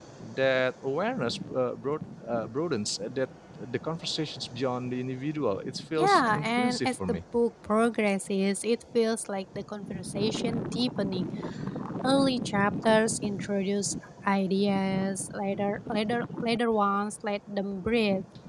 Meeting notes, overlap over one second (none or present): present